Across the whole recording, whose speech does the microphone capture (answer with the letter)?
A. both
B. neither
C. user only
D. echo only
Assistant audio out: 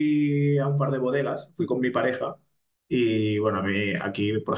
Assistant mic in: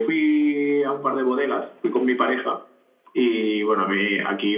D